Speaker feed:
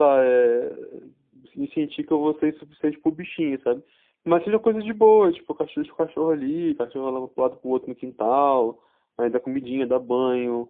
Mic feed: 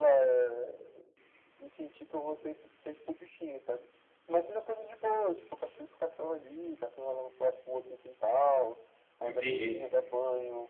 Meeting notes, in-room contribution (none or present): present